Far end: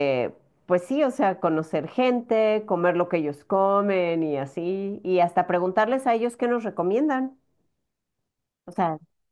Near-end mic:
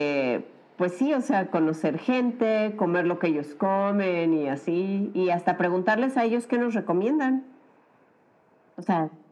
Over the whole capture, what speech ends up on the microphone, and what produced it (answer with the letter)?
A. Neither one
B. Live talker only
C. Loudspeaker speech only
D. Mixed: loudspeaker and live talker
C